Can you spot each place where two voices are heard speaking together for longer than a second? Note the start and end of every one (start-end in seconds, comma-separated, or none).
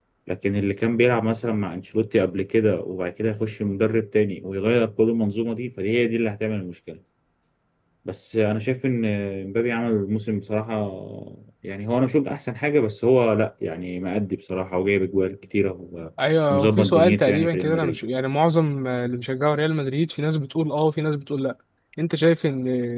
16.5-18.0